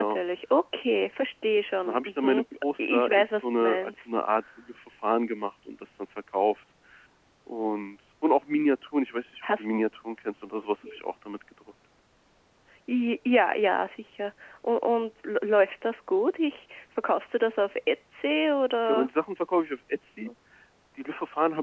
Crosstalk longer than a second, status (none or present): present